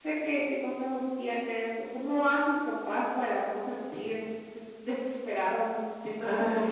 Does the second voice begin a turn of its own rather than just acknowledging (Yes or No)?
No